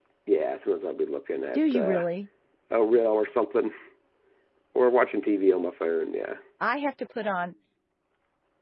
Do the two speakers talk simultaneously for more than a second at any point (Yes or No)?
No